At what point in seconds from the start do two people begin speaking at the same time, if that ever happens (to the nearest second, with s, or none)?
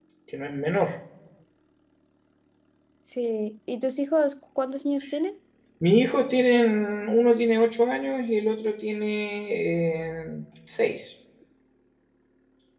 none